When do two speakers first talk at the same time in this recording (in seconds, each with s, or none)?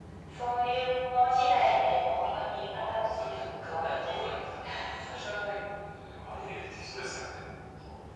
2.2 s